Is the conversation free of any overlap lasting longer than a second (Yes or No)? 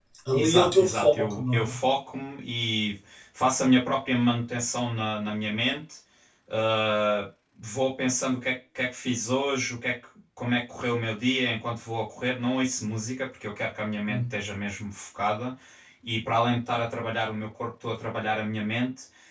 No